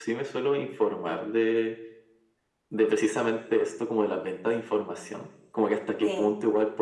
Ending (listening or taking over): listening